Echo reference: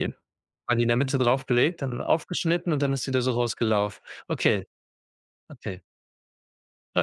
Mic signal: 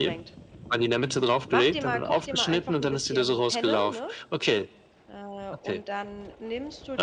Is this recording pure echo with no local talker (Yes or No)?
No